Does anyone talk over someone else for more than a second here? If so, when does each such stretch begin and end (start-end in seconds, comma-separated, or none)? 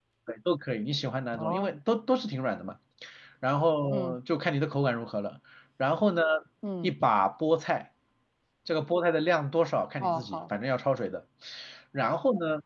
none